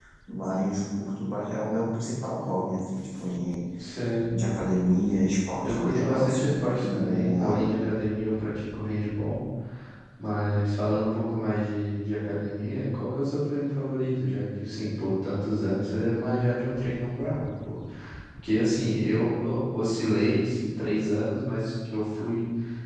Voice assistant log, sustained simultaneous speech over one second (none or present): present